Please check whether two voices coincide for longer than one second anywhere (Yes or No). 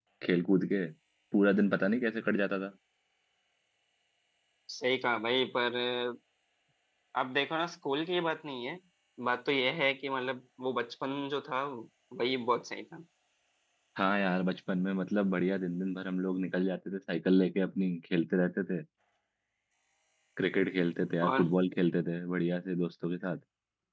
No